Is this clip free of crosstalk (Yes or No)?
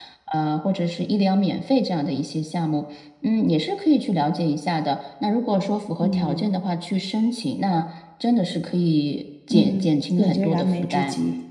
No